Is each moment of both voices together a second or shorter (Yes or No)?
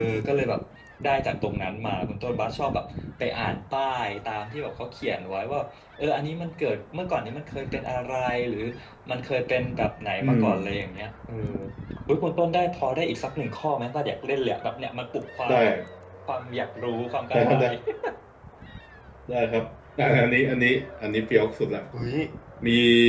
Yes